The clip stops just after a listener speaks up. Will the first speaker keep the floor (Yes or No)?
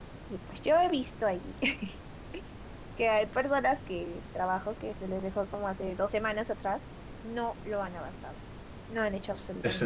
No